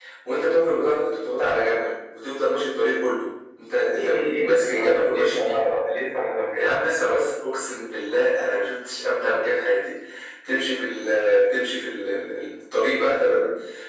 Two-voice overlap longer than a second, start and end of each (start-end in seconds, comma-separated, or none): 3.7-5.6